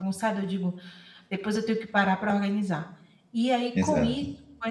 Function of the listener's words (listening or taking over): listening